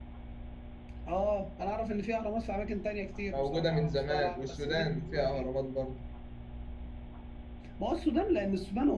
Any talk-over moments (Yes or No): Yes